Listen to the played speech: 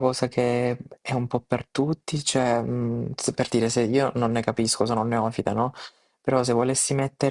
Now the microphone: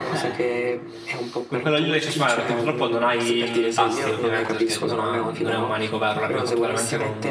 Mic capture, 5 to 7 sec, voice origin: both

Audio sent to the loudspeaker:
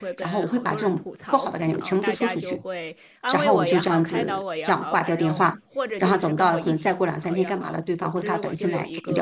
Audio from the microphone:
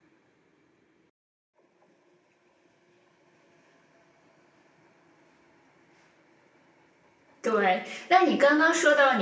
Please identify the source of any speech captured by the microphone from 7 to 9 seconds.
user only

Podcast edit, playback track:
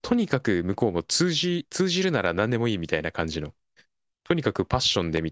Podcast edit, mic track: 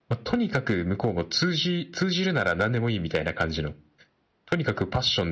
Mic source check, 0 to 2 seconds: echo only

